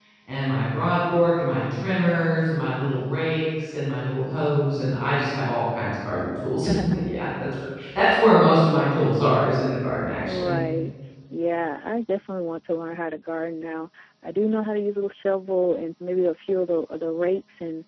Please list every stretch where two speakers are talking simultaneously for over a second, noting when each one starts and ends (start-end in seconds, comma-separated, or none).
none